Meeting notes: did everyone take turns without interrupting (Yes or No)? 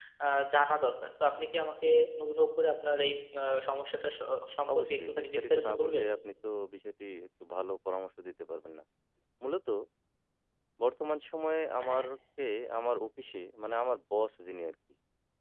No